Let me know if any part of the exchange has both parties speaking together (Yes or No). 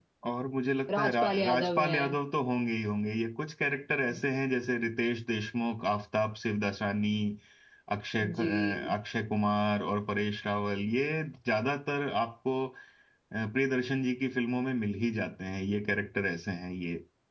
Yes